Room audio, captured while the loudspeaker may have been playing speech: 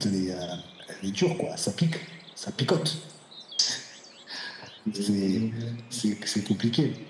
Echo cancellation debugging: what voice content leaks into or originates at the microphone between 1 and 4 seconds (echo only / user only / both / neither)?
echo only